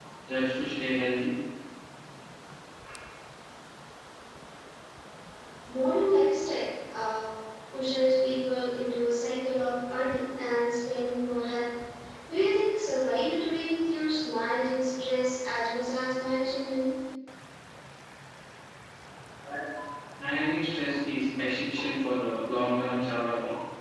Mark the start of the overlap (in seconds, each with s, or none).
none